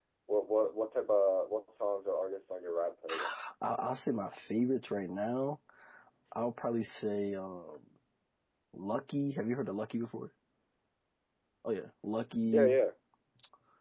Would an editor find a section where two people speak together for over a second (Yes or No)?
No